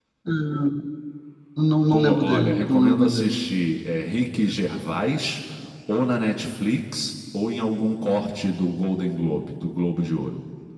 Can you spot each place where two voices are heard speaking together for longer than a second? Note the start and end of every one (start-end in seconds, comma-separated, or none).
1.9-3.4